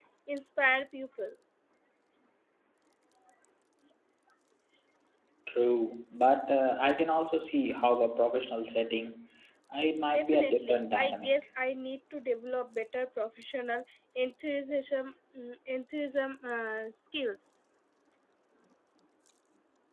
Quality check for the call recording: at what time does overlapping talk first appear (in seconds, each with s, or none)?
10.1 s